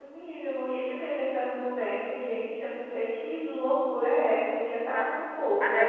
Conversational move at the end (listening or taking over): taking over